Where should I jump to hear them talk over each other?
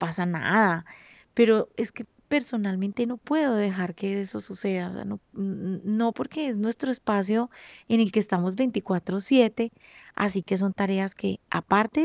none

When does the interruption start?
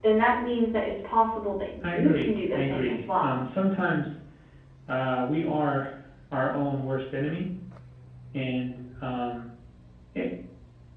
1.8 s

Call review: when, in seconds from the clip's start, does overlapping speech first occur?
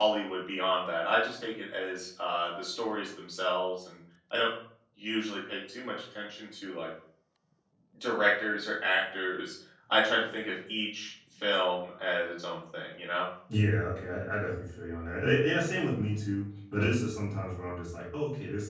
none

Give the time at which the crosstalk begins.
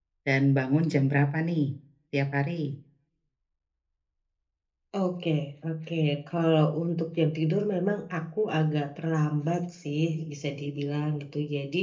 none

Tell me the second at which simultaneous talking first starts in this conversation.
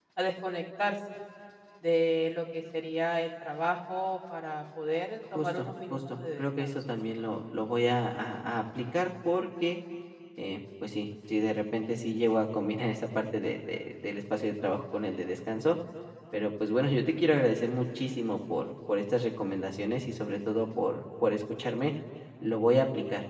5.4 s

